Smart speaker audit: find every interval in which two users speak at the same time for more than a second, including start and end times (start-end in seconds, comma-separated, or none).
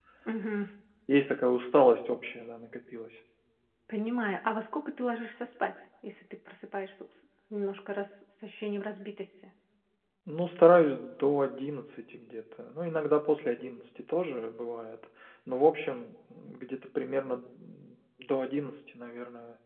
none